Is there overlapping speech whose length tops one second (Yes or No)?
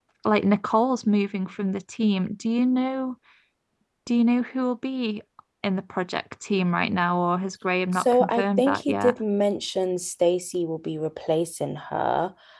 Yes